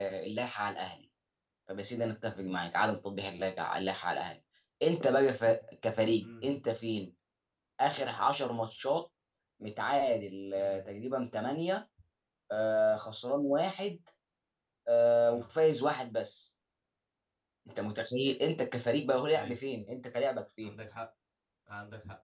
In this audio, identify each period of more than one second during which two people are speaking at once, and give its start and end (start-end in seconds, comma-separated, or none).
none